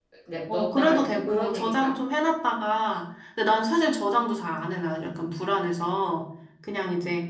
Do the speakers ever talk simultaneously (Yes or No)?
Yes